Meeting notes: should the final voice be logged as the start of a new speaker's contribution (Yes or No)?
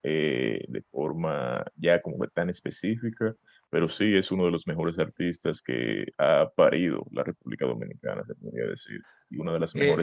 Yes